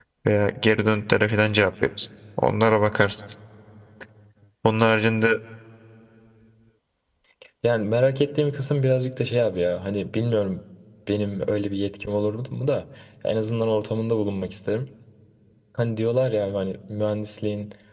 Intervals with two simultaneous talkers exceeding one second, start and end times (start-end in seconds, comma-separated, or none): none